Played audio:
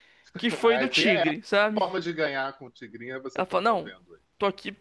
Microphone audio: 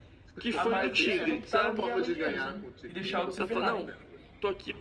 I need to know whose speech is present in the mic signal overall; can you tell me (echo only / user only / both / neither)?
both